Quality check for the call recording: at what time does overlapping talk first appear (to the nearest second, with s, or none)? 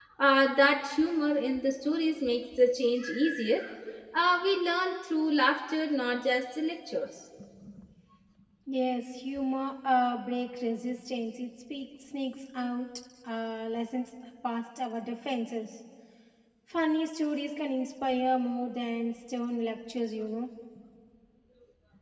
none